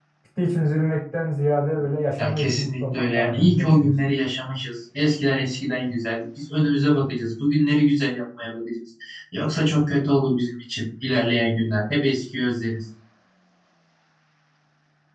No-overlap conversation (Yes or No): No